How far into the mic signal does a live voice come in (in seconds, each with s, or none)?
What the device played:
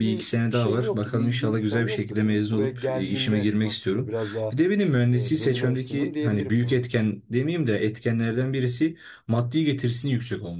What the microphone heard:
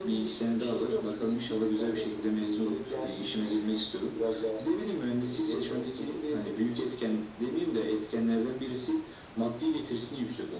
none